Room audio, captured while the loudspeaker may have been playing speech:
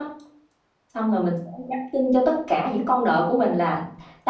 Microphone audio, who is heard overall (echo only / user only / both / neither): user only